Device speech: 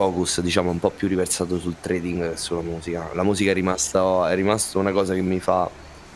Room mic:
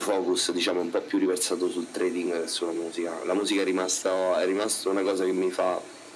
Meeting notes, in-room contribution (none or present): none